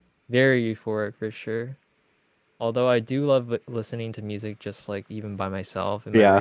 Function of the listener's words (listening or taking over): listening